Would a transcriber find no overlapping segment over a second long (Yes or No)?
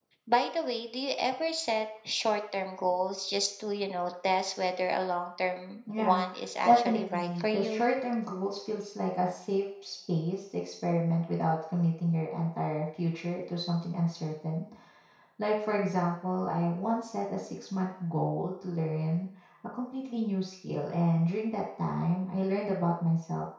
No